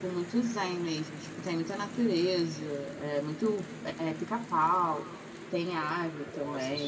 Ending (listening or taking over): listening